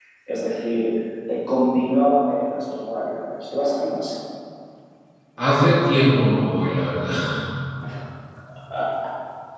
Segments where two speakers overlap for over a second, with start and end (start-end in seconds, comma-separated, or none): none